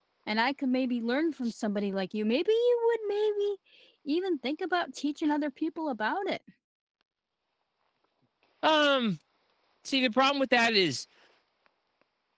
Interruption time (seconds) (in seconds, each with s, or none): none